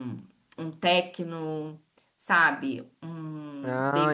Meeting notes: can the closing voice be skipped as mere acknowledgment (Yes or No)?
No